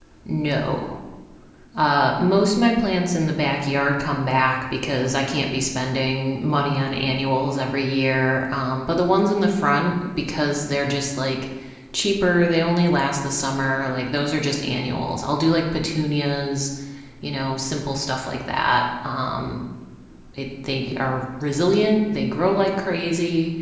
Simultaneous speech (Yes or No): No